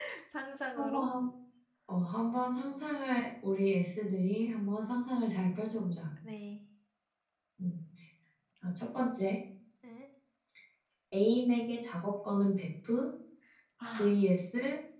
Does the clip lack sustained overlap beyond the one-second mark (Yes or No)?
Yes